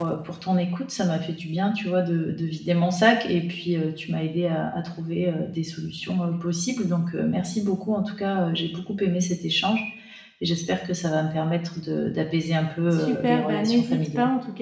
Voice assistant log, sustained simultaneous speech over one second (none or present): present